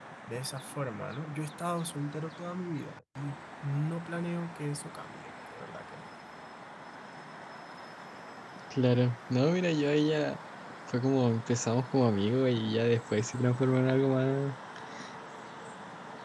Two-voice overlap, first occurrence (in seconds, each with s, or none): none